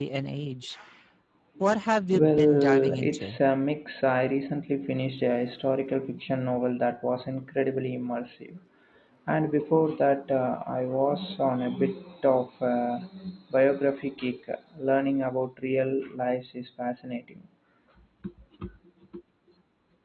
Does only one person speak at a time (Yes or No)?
No